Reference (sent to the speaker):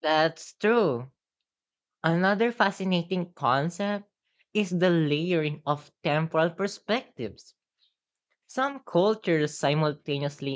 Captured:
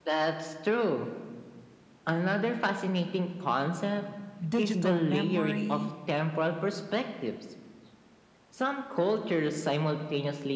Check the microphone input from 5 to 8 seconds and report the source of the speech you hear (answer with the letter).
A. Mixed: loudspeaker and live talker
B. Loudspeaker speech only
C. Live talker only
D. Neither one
A